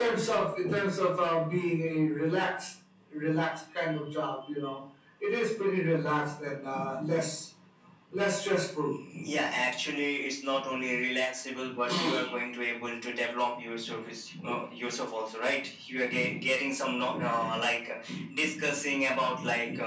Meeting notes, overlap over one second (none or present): none